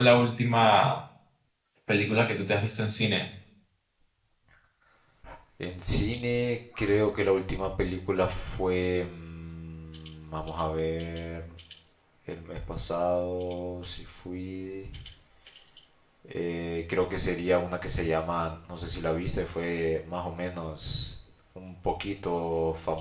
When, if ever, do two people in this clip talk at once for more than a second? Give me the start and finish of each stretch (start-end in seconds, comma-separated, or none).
none